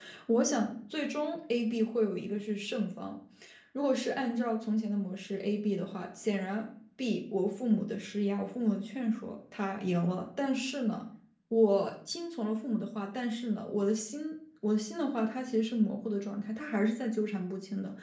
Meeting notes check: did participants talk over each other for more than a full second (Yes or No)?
No